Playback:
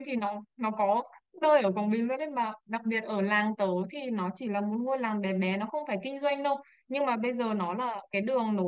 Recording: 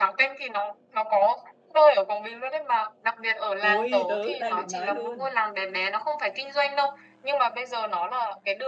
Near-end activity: present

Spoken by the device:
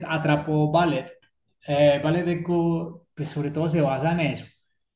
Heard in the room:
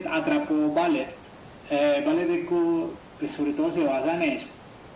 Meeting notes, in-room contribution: none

